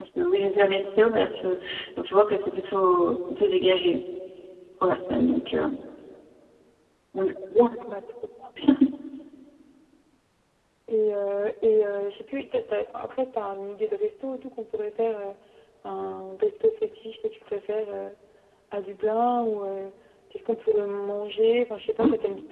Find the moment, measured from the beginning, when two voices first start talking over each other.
none

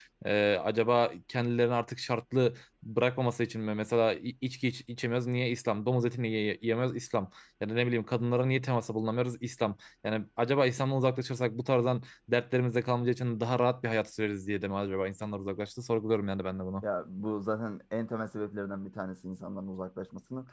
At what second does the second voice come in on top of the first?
none

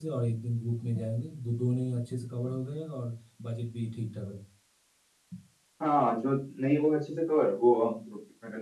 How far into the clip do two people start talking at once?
none

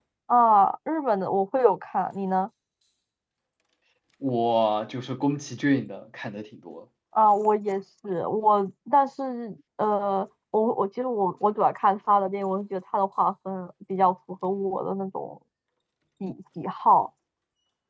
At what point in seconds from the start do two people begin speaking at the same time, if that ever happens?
none

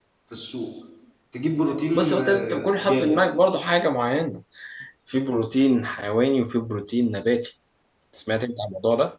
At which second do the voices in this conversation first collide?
1.9 s

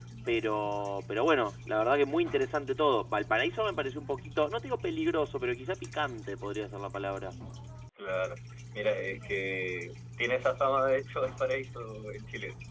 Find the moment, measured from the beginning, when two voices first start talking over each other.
none

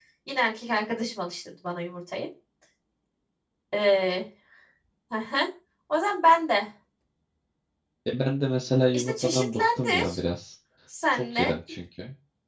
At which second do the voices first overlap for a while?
8.9 s

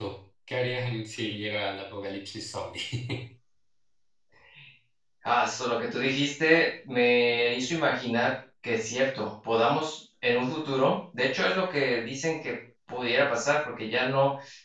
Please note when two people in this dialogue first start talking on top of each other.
none

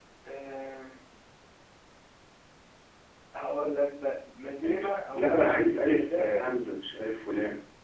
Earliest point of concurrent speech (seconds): 4.6 s

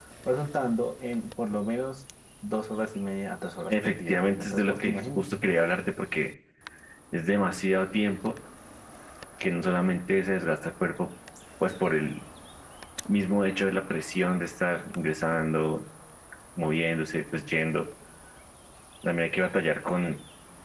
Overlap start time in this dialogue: 3.7 s

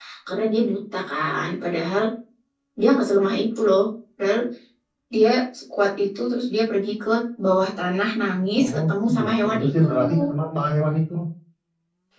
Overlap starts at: 8.6 s

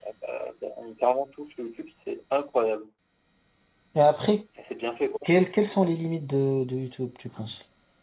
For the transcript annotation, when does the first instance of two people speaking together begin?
none

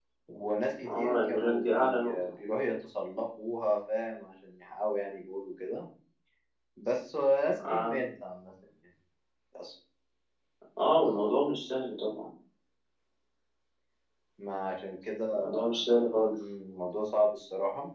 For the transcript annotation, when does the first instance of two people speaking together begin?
0.9 s

